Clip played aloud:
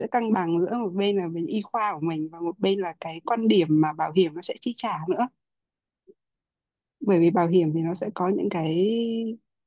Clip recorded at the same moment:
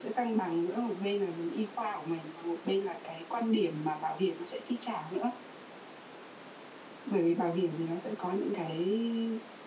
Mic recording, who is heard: echo only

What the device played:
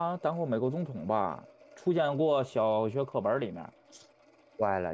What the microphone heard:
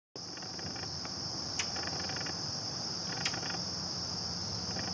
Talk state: neither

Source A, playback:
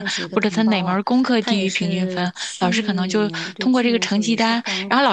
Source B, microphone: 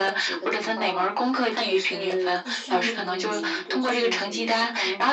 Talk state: both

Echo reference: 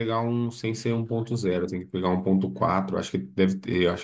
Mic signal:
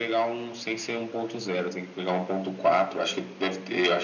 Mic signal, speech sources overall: echo only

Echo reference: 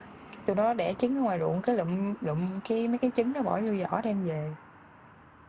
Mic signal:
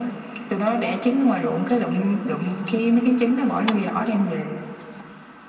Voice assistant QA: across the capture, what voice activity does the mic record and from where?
echo only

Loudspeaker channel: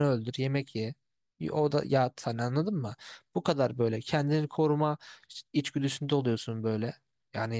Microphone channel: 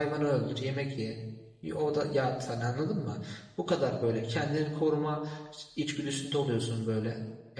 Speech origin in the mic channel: echo only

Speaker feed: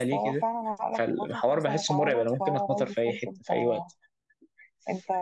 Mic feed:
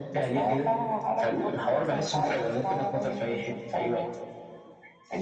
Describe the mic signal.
echo only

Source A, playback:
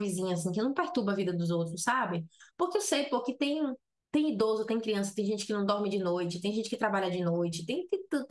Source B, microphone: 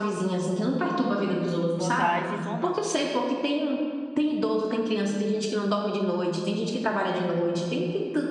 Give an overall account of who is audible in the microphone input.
both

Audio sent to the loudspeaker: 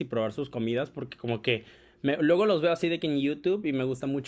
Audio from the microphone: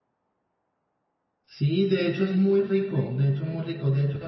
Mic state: user only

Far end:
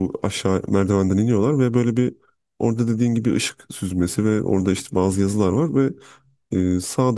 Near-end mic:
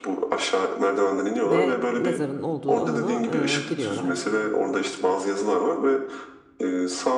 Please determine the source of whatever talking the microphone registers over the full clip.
both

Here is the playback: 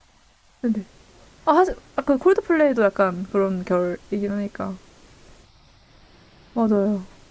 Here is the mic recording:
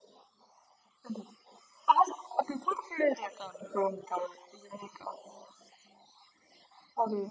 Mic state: echo only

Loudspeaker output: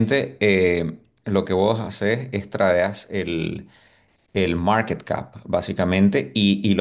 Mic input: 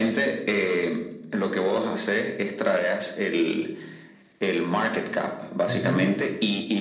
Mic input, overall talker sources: both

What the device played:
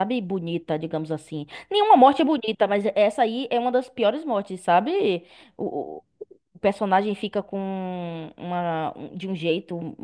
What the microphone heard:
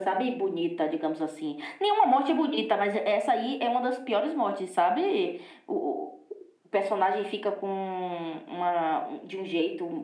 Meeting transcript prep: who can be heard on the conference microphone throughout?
echo only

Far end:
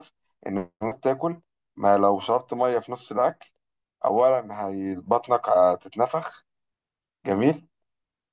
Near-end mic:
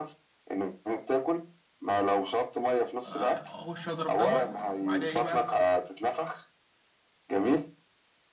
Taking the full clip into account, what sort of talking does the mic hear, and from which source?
both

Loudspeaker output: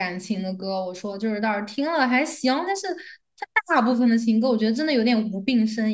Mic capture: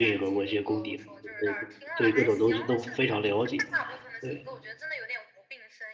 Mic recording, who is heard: both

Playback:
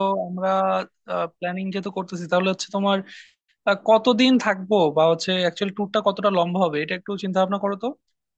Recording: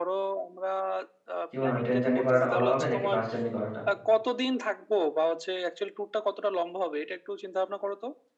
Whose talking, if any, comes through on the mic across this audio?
both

